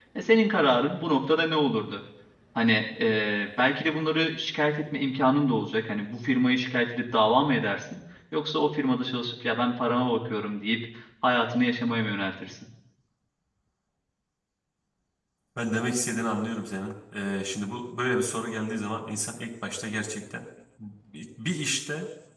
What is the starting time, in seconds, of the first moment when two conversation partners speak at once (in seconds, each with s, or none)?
none